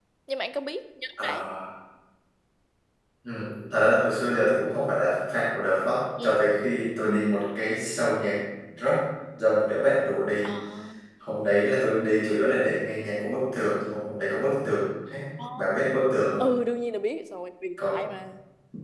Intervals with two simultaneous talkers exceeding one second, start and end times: none

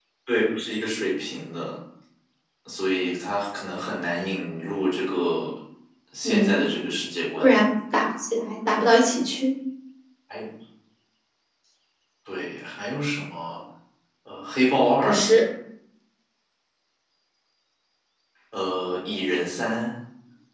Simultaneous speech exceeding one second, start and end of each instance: none

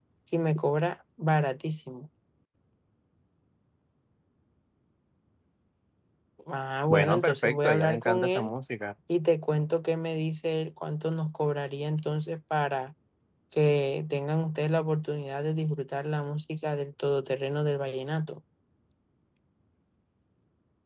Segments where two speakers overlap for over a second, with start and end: 6.9-8.5

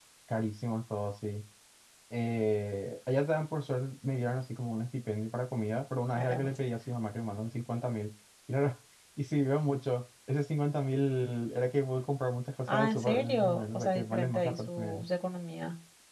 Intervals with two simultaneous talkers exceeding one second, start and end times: 12.7-15.0

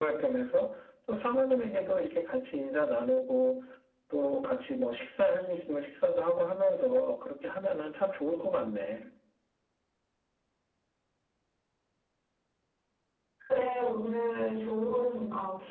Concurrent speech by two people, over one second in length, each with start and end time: none

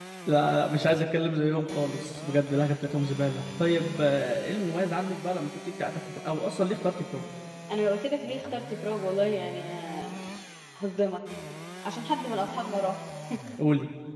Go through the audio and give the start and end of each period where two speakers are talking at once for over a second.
none

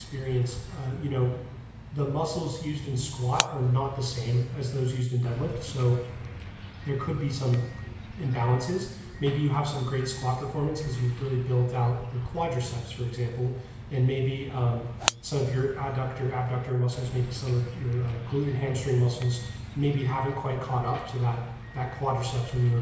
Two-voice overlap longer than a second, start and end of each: none

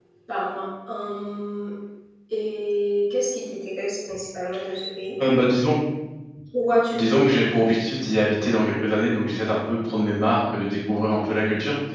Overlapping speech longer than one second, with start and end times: none

